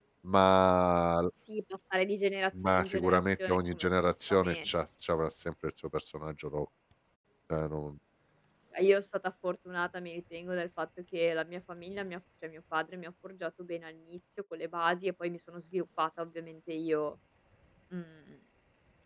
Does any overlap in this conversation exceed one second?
Yes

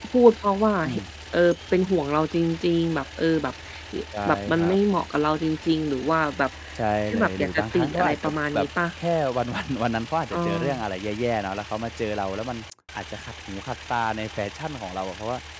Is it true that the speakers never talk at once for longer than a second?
No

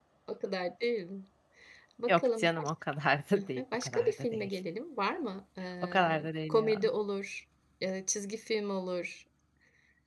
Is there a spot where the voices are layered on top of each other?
Yes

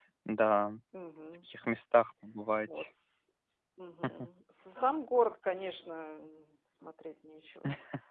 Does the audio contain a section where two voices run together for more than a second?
No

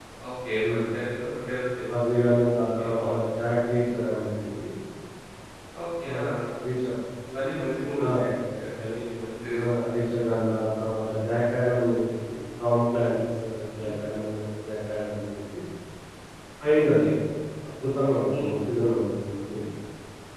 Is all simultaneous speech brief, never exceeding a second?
Yes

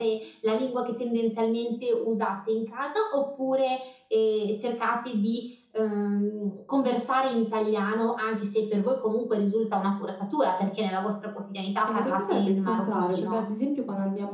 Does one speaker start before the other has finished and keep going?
Yes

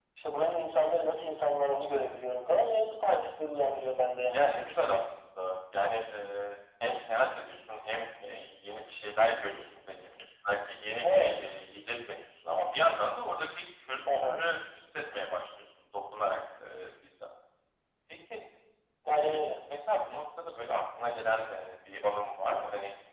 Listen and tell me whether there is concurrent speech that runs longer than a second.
No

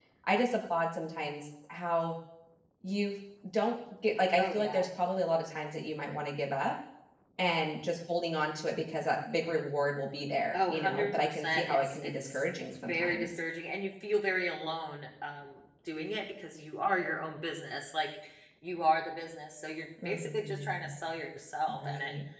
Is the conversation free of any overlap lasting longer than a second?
No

